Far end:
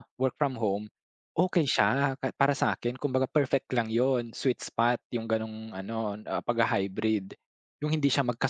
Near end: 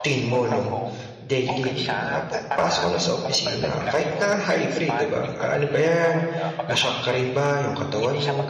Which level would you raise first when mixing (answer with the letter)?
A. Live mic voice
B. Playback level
B